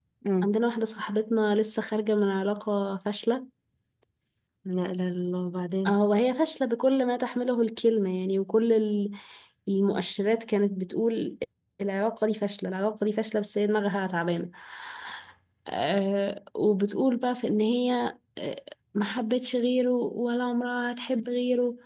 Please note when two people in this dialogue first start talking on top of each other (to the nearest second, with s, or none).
none